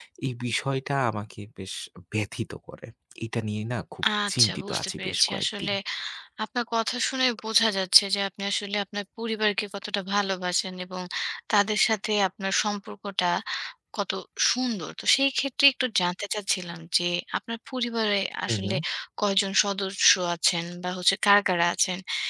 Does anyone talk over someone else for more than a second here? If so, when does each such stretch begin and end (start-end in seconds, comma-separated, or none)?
4.3-5.7